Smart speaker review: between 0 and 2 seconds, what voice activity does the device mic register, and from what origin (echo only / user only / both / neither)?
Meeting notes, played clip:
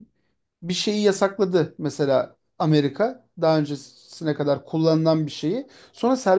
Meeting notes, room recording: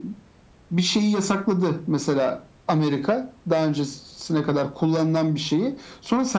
echo only